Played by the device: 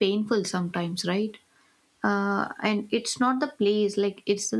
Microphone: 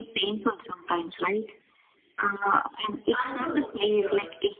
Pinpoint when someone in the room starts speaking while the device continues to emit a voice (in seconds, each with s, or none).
3.1 s